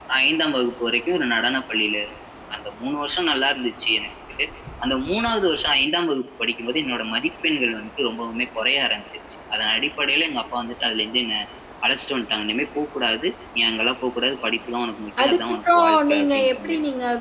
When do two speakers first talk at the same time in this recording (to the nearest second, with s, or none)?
15 s